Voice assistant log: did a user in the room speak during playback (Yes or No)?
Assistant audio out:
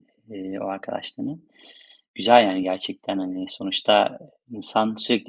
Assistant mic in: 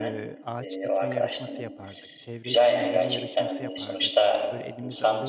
Yes